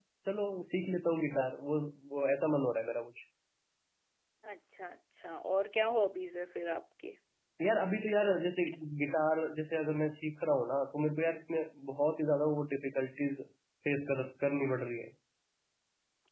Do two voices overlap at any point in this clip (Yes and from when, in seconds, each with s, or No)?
No